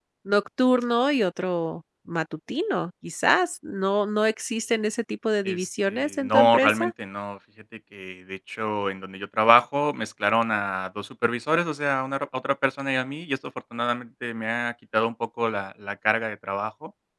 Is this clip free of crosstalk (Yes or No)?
No